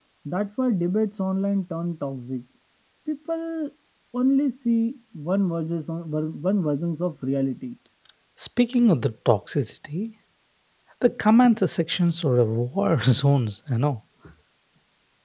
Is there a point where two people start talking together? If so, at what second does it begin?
none

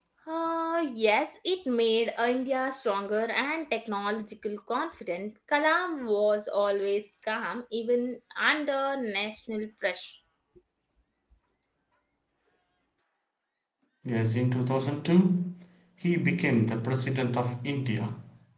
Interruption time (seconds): none

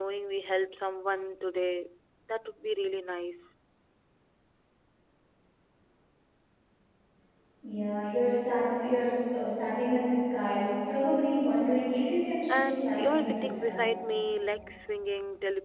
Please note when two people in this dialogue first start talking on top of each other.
12.5 s

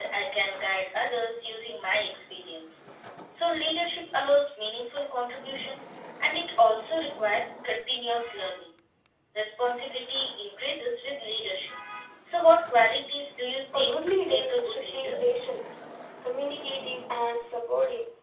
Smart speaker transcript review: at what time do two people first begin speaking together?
13.7 s

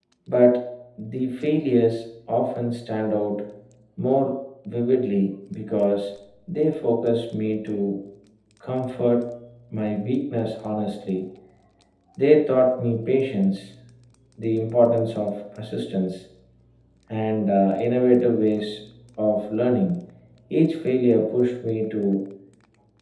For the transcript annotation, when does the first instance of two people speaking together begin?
none

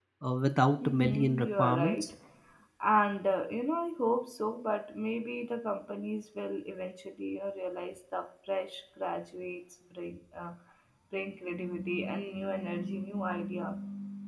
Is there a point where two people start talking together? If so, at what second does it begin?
0.8 s

